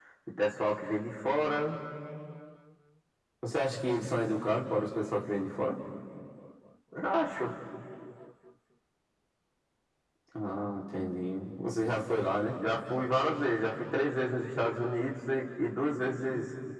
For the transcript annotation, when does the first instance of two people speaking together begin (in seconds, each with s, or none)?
none